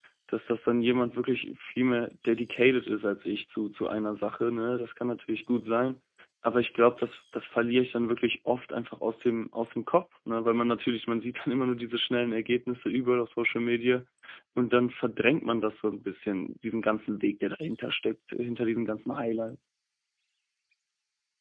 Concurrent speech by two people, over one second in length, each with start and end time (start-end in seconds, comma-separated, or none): none